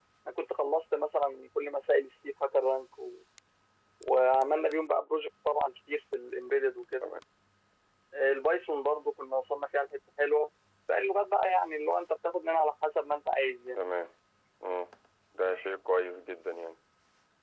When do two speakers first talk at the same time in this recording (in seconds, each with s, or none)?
none